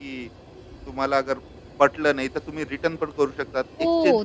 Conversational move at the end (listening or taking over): taking over